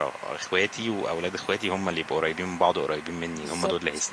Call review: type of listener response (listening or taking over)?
taking over